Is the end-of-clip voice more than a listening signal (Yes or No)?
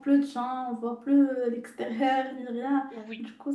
No